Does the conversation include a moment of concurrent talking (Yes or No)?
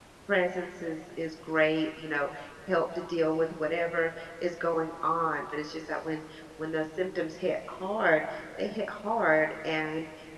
No